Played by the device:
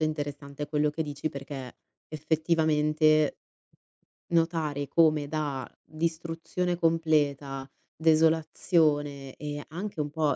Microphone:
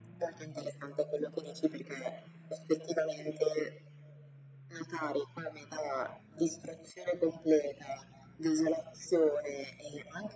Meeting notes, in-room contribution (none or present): none